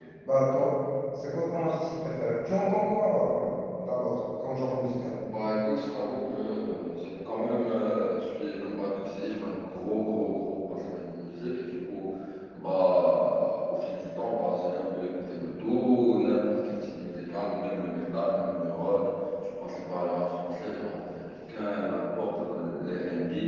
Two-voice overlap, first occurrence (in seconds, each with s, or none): none